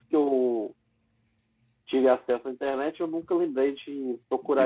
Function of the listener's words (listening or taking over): taking over